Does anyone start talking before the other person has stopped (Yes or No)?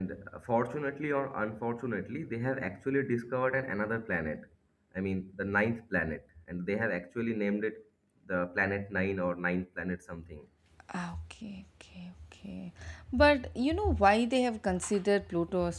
No